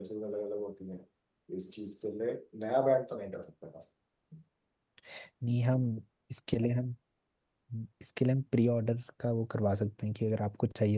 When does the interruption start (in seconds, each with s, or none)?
none